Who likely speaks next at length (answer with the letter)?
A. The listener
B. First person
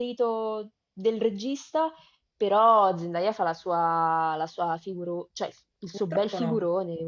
A